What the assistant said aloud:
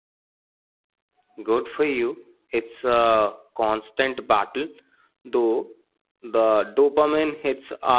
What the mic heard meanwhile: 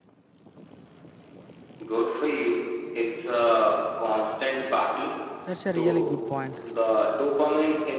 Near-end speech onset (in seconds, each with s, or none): 5.4 s